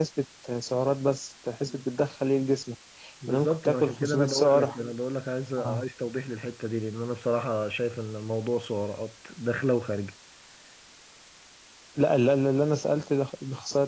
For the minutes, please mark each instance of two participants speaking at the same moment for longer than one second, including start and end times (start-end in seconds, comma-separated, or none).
3.3-4.8